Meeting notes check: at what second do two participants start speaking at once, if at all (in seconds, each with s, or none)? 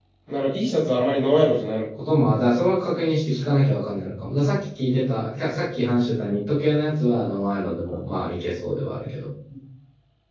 none